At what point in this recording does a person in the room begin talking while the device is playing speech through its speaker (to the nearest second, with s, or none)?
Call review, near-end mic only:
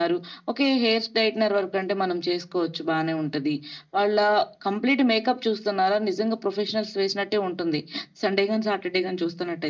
none